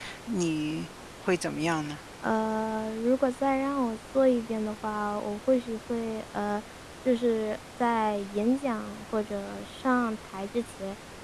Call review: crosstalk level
none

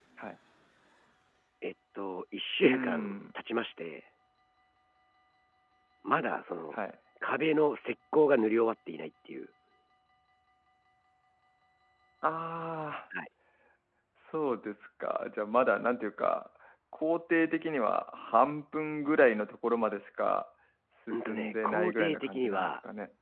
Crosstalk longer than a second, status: present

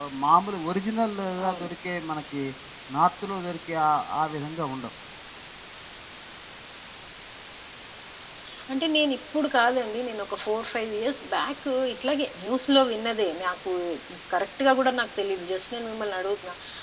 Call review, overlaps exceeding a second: none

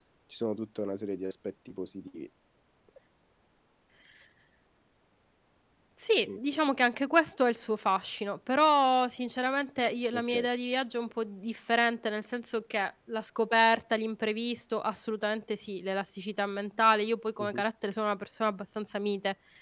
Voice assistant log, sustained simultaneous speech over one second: none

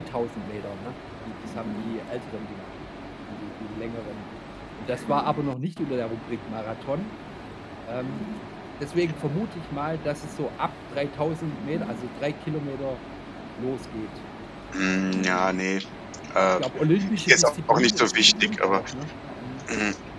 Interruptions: present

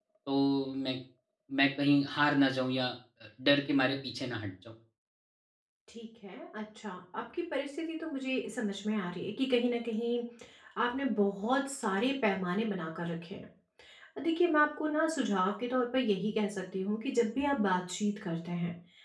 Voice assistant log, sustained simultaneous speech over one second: none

